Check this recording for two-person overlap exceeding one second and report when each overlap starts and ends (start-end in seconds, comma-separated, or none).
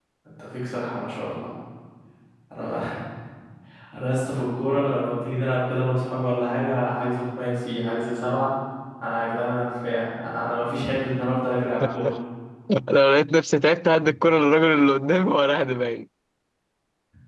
none